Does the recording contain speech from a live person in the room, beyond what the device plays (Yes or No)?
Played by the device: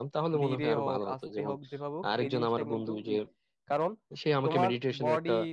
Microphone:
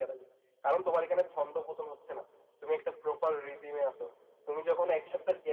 Yes